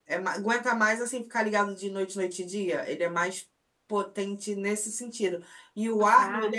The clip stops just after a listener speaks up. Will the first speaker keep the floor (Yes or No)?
Yes